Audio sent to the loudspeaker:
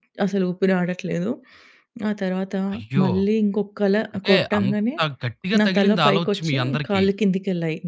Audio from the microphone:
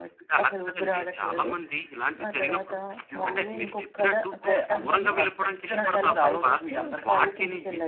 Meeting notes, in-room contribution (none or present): present